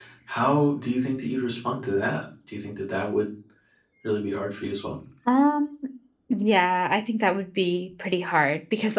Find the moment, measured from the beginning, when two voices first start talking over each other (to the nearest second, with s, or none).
none